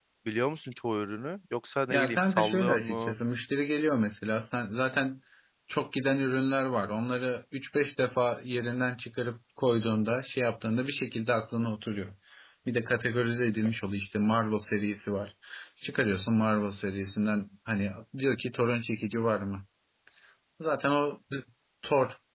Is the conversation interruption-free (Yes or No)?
No